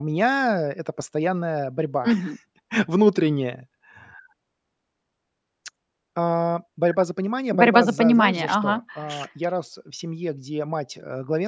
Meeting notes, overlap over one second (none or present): present